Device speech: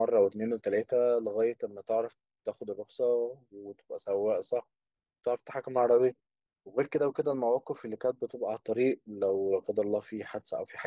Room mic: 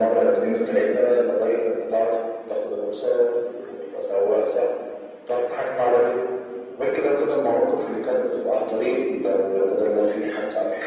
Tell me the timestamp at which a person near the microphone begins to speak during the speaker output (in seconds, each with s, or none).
none